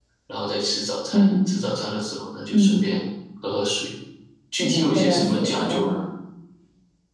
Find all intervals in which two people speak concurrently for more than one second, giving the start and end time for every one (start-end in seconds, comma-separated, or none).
4.6-5.9